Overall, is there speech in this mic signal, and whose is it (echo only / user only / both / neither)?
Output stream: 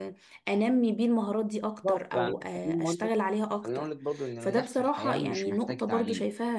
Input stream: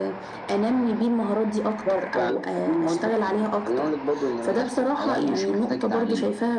echo only